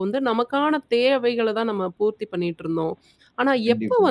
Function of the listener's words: listening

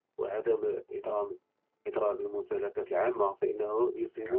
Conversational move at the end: listening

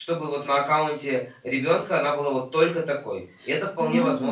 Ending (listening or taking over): taking over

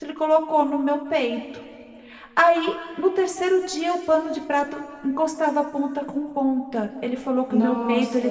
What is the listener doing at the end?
listening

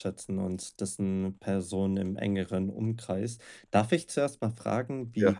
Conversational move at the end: listening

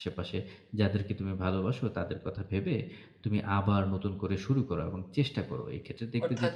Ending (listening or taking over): taking over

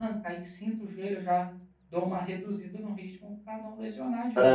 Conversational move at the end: taking over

